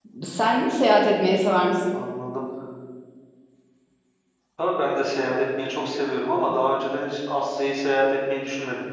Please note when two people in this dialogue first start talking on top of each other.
none

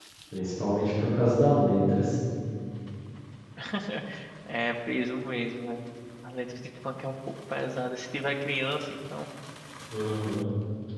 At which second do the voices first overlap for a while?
none

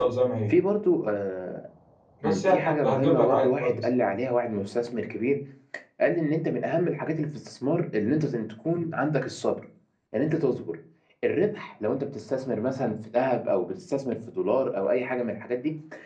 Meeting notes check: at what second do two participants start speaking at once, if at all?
2.2 s

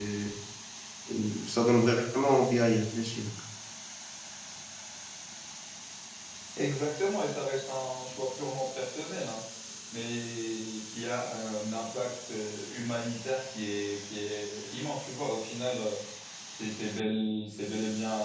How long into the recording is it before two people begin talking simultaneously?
none

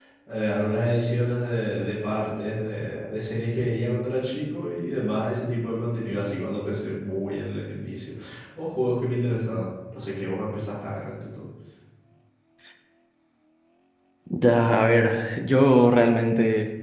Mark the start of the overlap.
none

